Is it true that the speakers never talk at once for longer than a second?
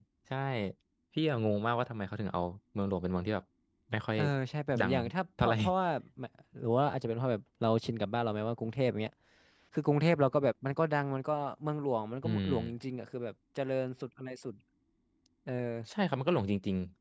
Yes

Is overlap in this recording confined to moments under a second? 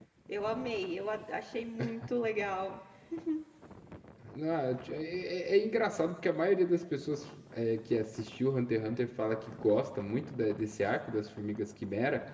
Yes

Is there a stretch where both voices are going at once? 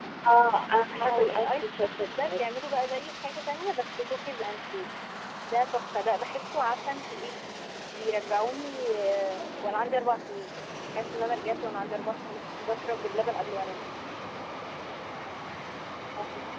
Yes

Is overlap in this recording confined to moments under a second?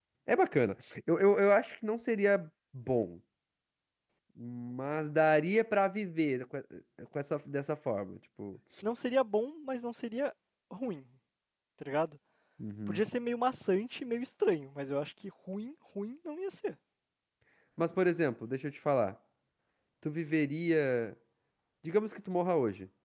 Yes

